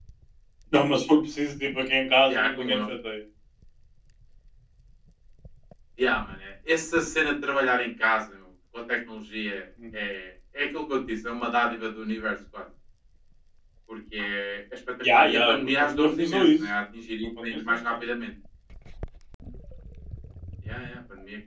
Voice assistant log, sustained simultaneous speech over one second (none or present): present